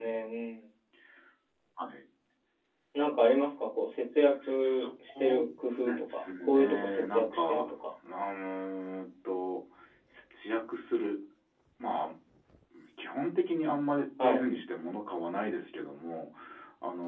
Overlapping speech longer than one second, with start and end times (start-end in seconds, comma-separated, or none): 5.8-7.7